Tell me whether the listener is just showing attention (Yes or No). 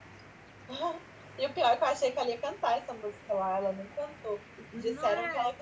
Yes